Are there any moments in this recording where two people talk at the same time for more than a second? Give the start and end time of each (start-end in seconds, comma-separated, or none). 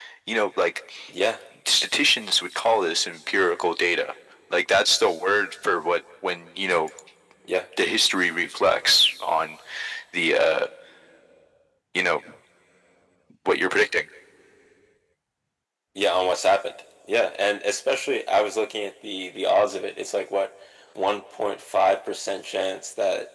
none